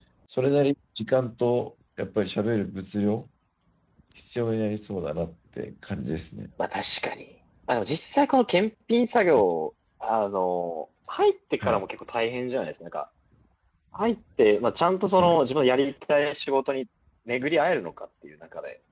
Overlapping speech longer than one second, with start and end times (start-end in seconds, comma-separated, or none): none